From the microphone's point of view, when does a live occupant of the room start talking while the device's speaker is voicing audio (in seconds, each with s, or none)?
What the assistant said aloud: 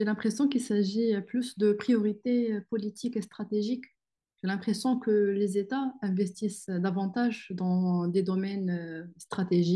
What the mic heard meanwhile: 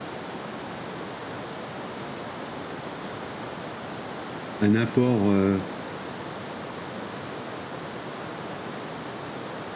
4.6 s